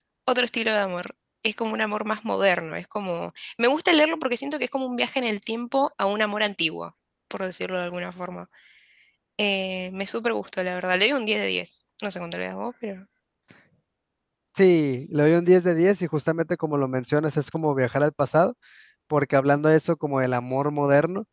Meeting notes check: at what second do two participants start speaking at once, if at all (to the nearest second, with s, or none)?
none